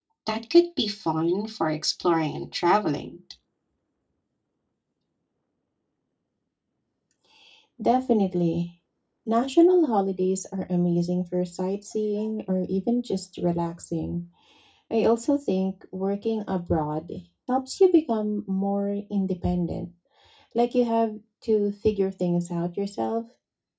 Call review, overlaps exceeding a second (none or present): none